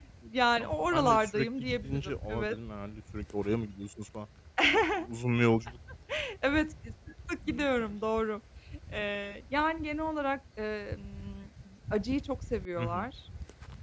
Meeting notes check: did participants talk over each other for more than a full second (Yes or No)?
Yes